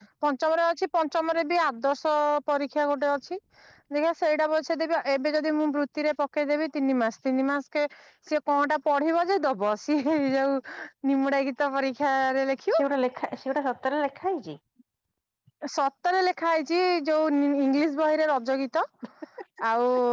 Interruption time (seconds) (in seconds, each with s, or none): none